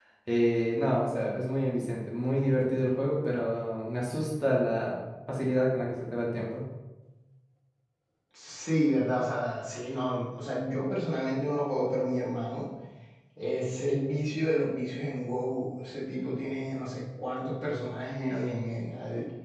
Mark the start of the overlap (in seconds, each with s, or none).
none